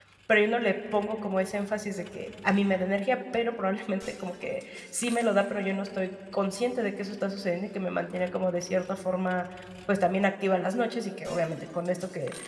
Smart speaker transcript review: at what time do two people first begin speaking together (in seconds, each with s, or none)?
none